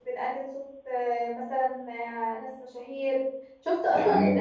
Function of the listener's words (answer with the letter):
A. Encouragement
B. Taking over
A